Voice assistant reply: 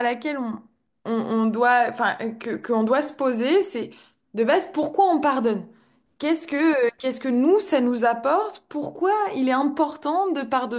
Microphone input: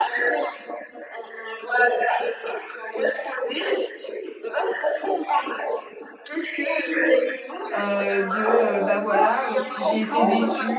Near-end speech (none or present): present